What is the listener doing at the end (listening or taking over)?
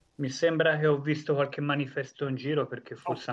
listening